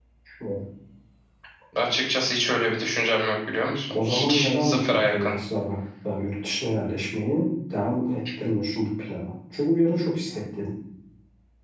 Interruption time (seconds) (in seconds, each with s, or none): 3.9 s